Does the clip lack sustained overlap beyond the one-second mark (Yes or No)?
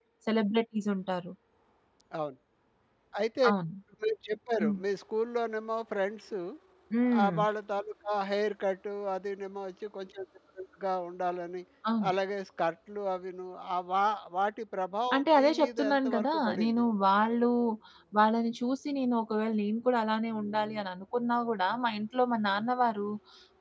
No